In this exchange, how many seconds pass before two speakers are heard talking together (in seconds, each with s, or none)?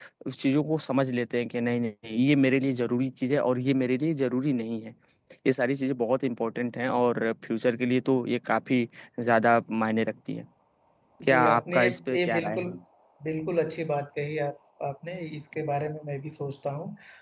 11.2 s